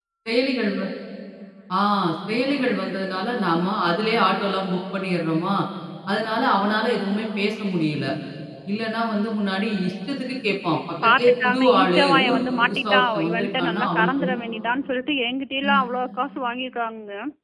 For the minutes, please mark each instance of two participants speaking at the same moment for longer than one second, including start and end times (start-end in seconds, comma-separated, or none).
11.0-14.4